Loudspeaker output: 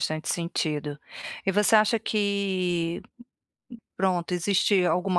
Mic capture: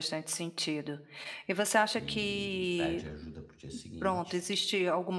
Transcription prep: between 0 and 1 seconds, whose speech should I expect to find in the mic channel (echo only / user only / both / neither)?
echo only